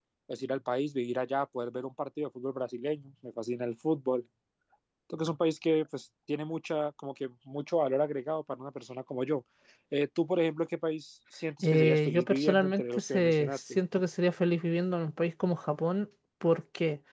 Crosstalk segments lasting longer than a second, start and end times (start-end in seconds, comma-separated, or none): 11.6-13.8